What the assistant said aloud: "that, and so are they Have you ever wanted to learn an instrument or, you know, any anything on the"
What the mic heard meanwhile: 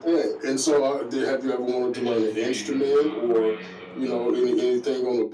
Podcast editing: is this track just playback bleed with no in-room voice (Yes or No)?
No